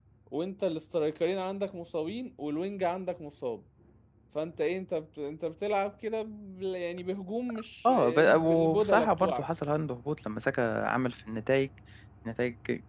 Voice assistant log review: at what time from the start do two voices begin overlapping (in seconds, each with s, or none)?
7.9 s